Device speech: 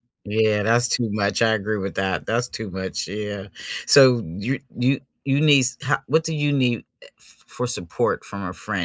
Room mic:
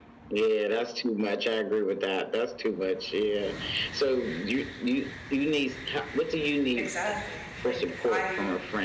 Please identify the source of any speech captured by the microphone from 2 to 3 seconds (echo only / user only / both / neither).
echo only